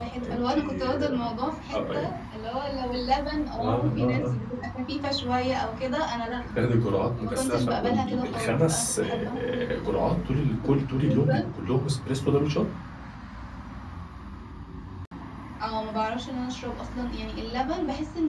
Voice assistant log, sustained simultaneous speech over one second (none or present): present